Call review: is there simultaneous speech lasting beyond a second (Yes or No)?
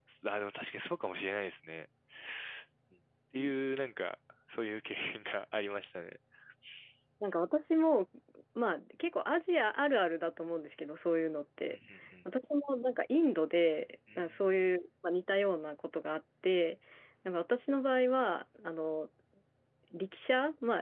No